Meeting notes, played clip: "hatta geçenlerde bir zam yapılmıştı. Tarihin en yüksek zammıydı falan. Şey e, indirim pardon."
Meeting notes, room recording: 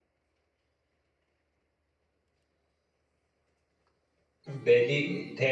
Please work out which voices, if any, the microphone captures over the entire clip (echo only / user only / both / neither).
user only